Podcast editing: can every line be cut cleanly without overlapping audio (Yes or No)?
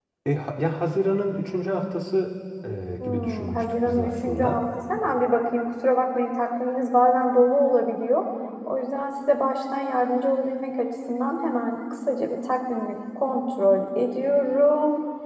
No